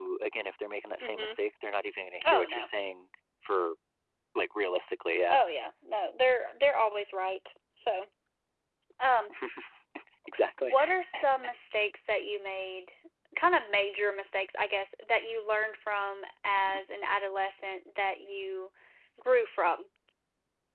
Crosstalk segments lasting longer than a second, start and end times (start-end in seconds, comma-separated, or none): none